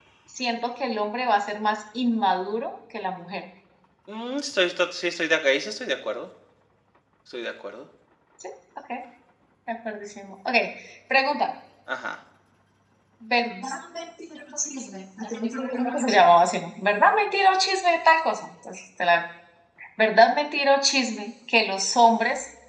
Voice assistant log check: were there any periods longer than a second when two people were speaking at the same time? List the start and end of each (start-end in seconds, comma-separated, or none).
none